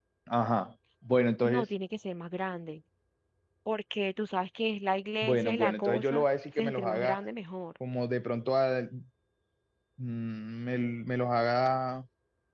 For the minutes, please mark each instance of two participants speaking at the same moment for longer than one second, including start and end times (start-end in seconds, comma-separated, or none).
5.2-7.2